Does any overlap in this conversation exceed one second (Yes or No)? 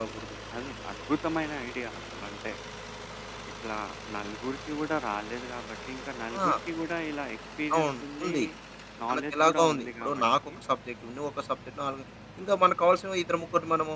Yes